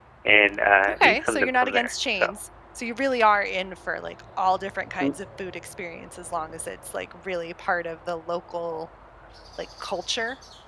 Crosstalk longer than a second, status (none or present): present